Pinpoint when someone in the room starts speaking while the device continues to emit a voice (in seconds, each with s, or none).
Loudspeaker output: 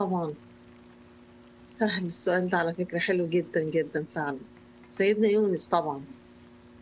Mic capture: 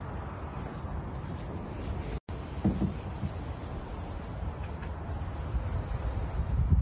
none